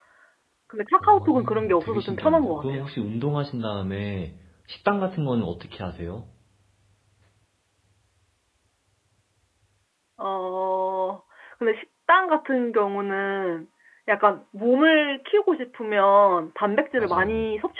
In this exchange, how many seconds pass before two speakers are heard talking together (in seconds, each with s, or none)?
1.0 s